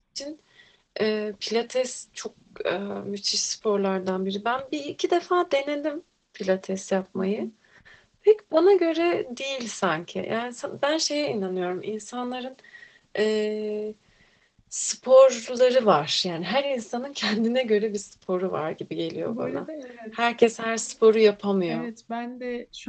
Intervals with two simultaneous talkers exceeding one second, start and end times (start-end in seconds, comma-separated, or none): none